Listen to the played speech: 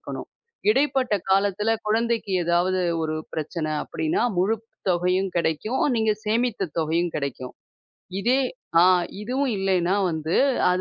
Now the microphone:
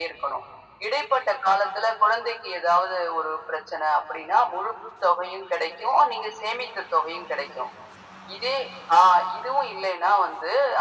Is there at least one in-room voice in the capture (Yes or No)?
No